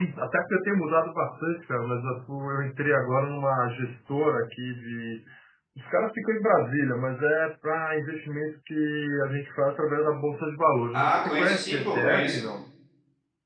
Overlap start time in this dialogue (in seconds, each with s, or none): 10.9 s